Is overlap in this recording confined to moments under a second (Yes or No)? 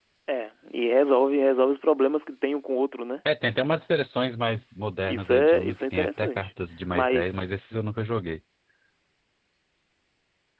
No